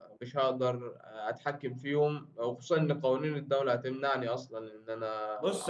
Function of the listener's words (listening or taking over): taking over